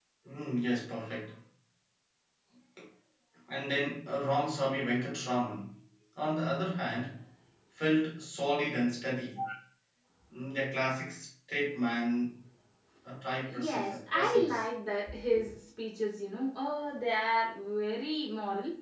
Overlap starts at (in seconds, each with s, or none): 13.4 s